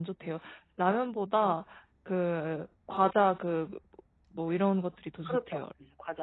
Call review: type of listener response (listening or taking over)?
taking over